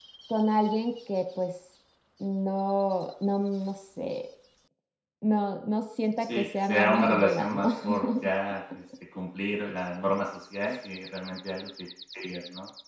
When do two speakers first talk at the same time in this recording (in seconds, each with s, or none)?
6.2 s